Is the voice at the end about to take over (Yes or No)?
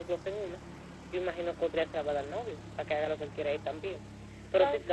No